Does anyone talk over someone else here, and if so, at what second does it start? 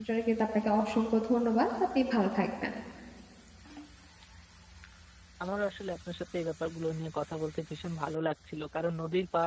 none

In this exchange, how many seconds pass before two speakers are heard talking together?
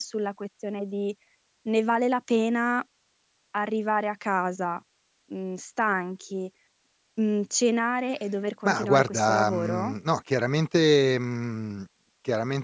8.6 s

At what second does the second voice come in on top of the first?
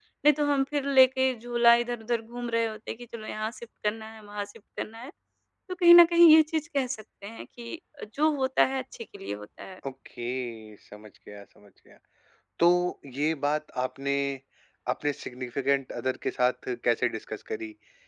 none

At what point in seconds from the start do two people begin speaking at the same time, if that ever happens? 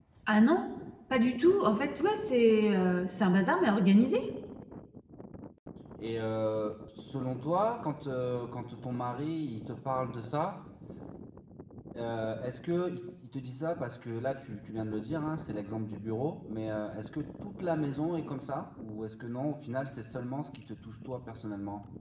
none

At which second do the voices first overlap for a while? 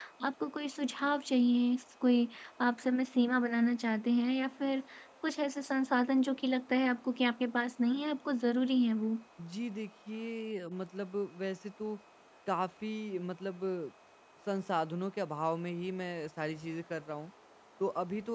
none

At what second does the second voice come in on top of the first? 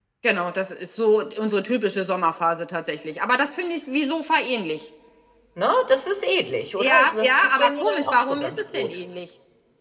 6.8 s

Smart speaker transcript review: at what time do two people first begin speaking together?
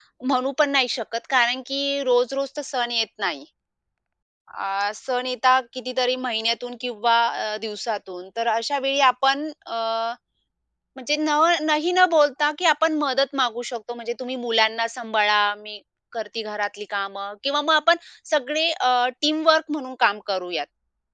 none

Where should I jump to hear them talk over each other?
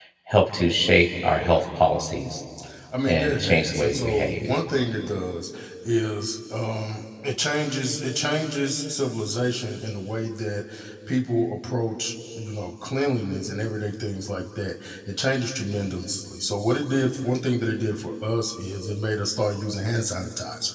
3.0 s

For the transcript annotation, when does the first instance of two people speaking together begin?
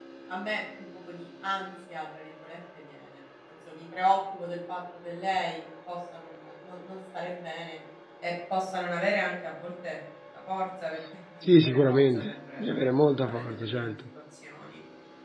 11.4 s

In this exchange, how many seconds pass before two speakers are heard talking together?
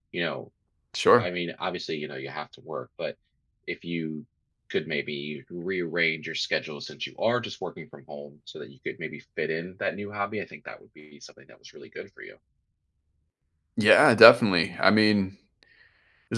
none

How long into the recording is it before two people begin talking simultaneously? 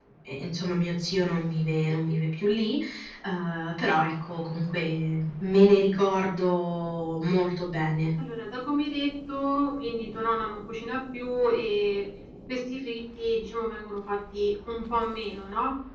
none

